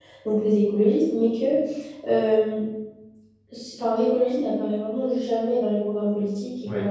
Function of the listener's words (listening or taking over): listening